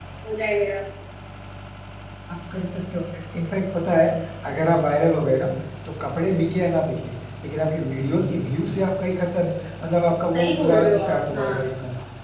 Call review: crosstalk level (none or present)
present